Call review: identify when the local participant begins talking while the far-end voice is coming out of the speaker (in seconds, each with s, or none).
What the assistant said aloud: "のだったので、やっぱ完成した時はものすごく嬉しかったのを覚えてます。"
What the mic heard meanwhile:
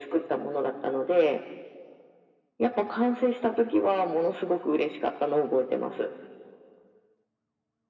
none